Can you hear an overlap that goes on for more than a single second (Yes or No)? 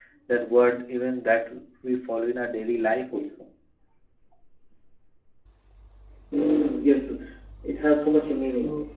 No